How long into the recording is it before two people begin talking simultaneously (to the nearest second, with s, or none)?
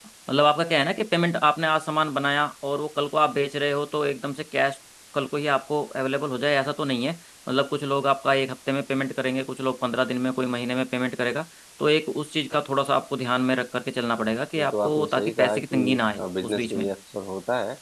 15 s